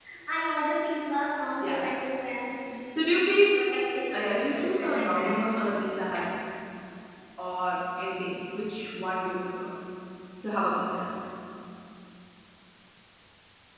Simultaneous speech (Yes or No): Yes